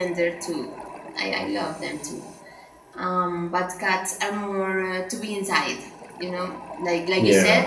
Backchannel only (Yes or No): Yes